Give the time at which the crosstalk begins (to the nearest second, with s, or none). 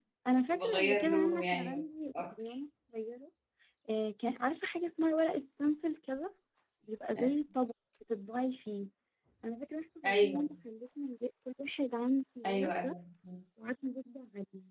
1 s